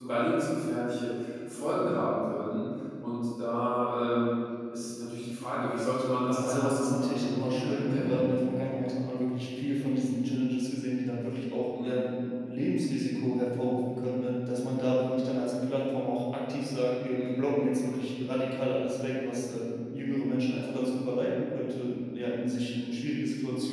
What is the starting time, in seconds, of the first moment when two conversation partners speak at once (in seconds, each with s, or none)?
6.3 s